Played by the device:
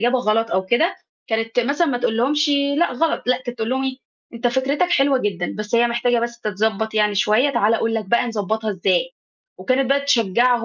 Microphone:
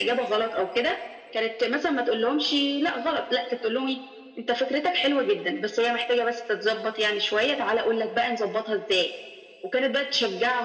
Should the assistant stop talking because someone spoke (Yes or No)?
No